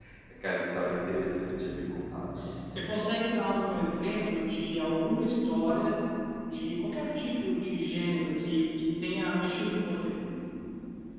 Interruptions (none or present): none